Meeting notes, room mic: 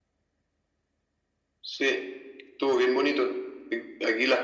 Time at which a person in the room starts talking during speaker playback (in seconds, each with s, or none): none